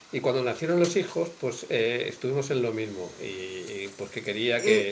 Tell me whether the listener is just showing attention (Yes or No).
Yes